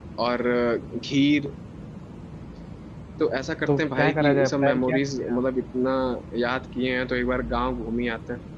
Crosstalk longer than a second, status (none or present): present